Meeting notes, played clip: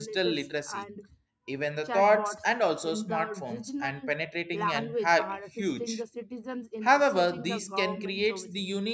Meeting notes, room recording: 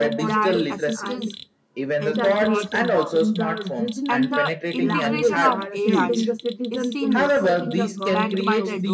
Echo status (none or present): present